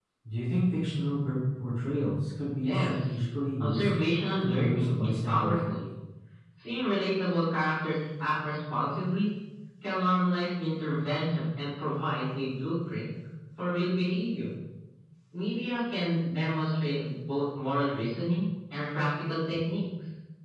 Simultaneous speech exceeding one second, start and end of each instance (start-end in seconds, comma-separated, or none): 4.4-5.7